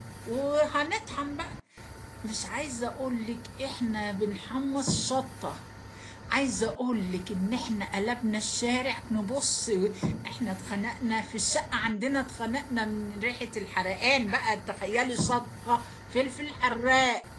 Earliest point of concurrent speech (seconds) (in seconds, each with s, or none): none